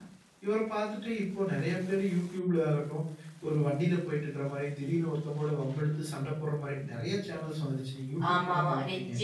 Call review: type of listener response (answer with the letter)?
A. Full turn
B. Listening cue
A